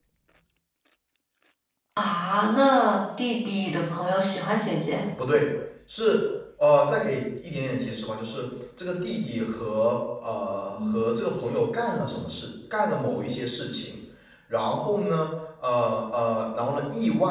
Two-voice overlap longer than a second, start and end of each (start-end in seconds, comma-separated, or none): none